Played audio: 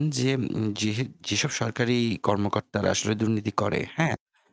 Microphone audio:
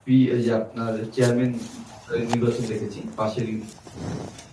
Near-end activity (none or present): present